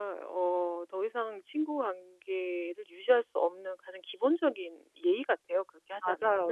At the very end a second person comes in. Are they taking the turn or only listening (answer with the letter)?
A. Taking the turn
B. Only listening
A